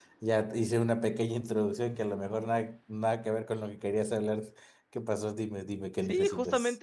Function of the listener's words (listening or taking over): taking over